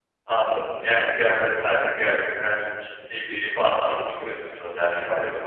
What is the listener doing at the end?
listening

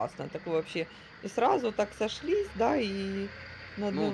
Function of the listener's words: taking over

